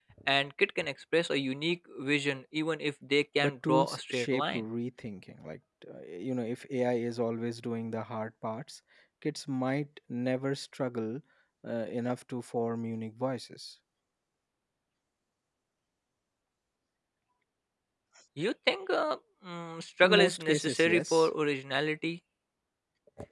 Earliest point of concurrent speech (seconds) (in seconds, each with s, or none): 3.4 s